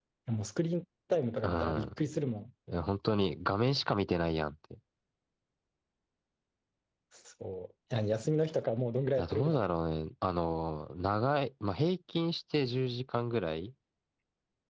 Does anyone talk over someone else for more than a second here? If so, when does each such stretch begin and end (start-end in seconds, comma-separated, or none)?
none